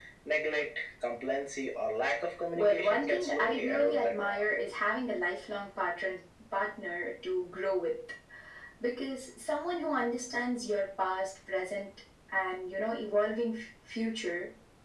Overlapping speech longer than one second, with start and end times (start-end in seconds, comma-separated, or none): 2.5-4.6